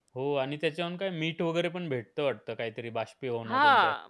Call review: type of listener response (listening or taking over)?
taking over